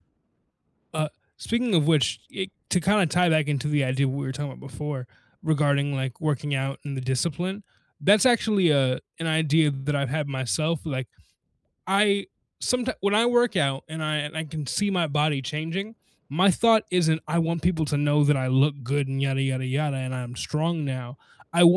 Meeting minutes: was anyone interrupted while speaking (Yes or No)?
No